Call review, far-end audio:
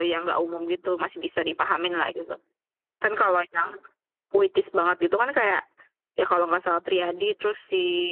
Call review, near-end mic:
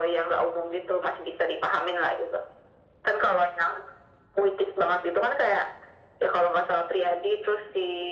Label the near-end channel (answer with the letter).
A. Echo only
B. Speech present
A